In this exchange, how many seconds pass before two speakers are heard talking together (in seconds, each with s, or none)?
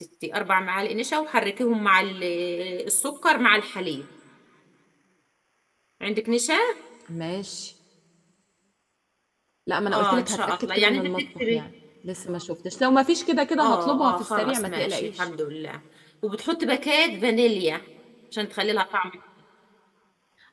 9.9 s